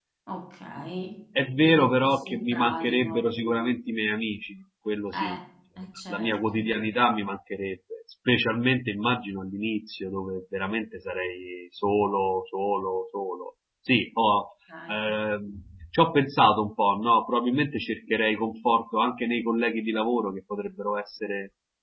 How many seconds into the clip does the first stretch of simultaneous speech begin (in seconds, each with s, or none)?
1.6 s